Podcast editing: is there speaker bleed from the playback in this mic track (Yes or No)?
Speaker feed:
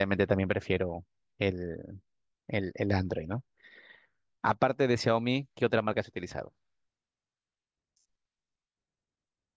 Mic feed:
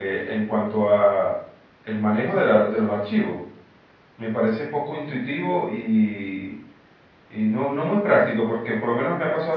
No